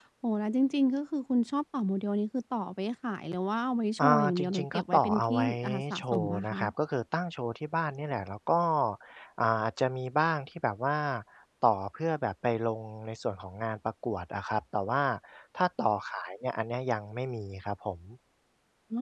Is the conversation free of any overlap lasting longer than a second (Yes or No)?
No